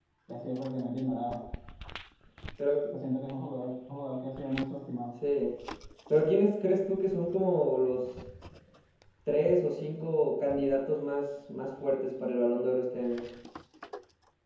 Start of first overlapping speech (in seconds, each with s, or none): none